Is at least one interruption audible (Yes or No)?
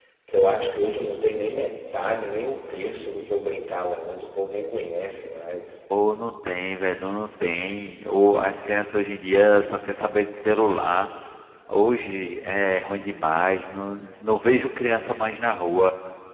No